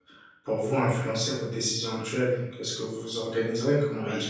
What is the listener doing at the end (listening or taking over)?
listening